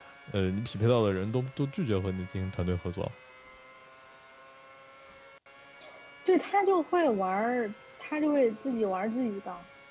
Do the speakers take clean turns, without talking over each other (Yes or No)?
Yes